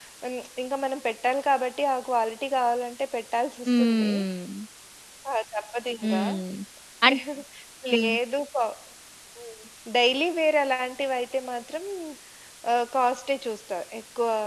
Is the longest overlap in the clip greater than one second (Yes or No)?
No